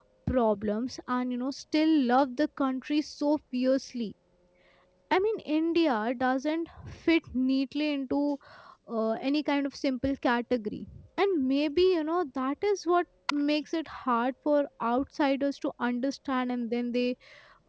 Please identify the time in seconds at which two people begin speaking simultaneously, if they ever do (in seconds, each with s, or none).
none